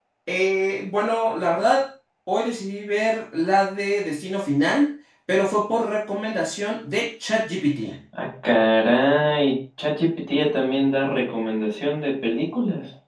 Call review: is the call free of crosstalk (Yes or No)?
Yes